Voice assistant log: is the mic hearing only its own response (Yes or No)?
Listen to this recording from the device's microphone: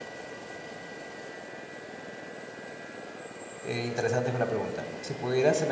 No